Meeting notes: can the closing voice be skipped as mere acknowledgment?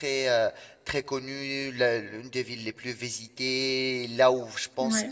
Yes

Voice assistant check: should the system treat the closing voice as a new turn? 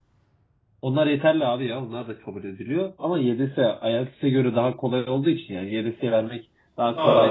No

